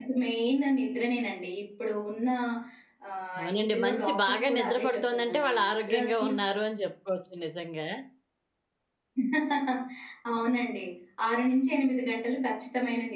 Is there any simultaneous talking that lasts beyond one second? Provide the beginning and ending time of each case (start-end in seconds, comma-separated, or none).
3.4-6.4